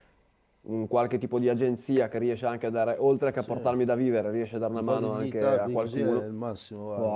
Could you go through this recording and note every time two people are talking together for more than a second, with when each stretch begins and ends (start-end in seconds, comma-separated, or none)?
4.8-6.2